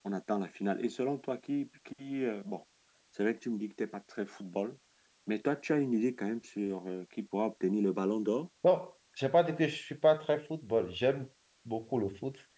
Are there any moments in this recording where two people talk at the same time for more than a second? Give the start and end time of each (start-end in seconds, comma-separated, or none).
none